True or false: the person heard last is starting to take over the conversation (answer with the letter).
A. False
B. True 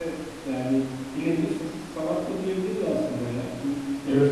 B